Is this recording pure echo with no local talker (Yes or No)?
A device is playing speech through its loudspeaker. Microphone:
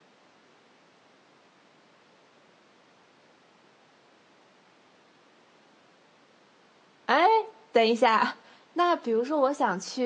No